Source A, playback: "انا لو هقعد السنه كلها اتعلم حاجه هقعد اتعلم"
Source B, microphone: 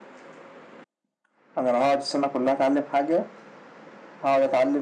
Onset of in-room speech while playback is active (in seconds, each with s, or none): none